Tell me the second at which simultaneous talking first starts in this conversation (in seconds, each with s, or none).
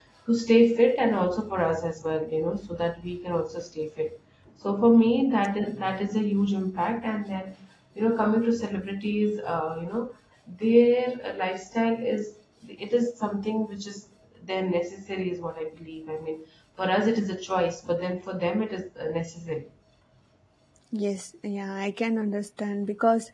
none